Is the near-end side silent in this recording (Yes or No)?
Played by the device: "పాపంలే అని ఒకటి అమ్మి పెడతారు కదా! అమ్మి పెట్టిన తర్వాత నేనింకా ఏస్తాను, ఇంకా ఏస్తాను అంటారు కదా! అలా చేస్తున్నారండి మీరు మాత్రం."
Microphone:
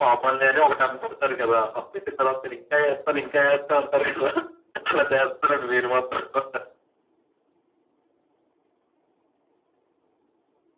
Yes